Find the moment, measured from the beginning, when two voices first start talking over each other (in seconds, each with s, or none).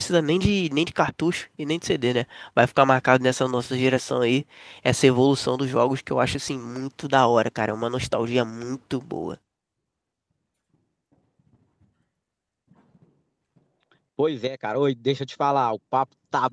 none